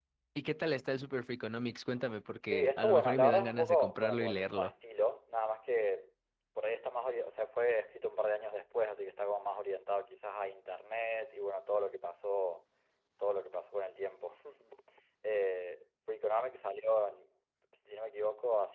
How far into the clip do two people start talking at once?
2.5 s

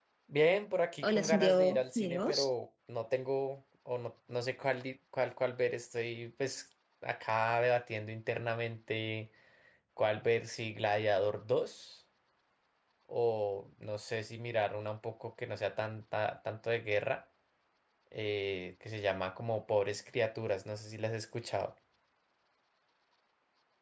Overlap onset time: 1.0 s

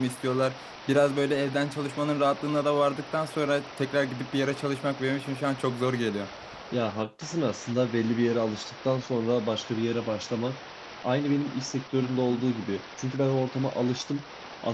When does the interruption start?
none

